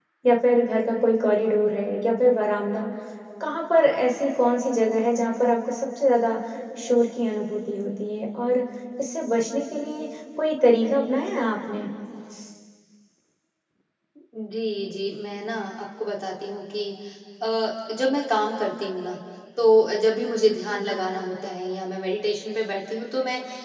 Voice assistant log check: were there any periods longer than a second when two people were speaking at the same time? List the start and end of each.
none

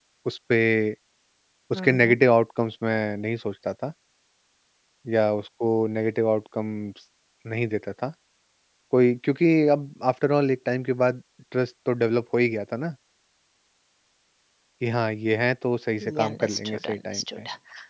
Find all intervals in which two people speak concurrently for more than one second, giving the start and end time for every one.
16.0-17.2

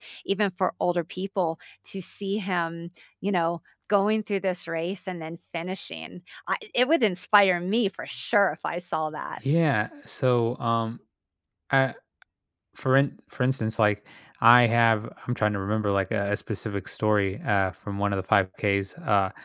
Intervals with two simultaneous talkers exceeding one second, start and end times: none

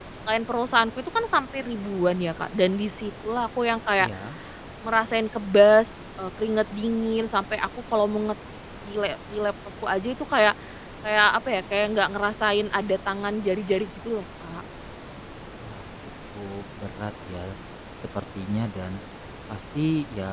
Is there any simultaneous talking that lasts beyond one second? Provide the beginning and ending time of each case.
none

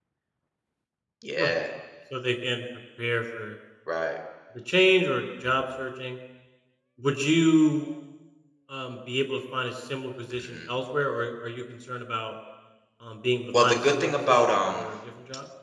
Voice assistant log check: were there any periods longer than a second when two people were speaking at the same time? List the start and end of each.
13.6-14.9

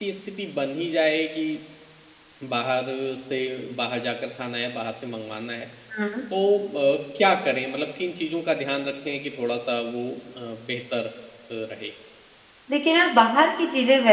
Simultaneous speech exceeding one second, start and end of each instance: none

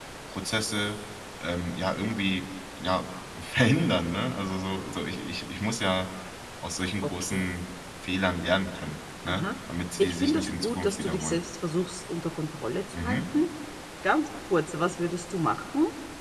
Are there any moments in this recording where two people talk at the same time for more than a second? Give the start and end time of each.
10.0-11.4

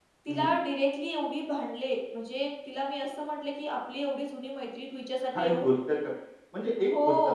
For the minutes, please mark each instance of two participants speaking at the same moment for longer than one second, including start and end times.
none

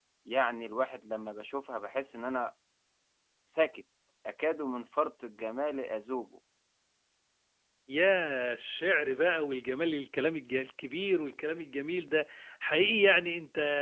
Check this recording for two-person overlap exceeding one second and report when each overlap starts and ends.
none

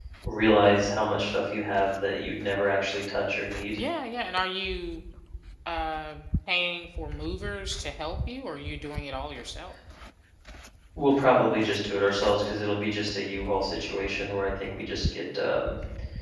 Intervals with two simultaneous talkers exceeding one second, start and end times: none

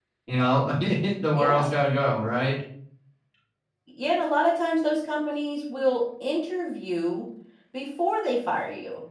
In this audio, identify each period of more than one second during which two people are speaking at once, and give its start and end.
none

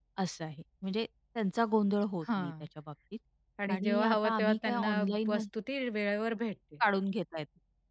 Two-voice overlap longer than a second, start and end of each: 3.7-5.3

